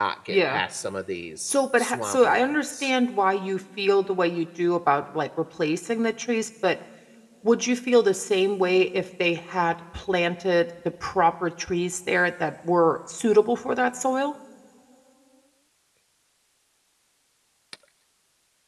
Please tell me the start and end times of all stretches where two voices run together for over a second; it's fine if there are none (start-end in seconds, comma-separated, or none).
1.5-2.9